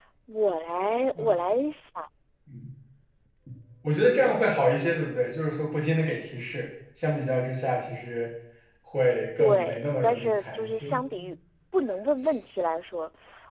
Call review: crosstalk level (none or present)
present